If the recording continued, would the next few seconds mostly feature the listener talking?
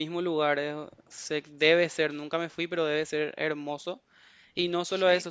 No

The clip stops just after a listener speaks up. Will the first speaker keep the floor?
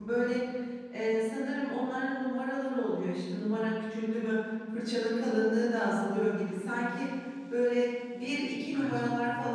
Yes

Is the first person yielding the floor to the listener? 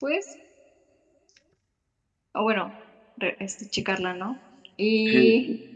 Yes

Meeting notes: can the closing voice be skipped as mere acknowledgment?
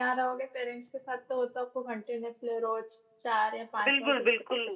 No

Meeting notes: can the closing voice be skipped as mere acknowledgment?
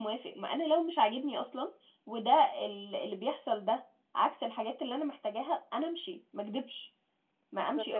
No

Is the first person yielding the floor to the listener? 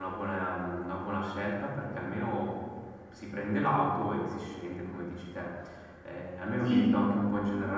No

